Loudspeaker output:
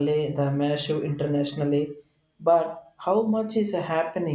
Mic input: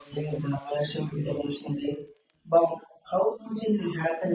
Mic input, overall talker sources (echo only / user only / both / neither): echo only